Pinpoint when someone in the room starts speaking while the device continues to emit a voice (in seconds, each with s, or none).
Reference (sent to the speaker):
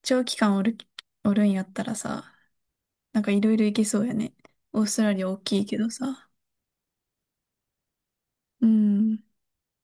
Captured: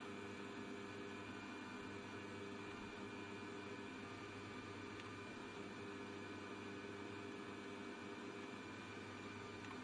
none